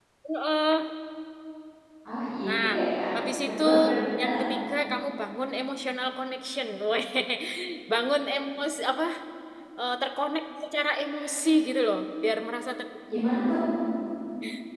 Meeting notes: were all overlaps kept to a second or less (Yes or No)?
Yes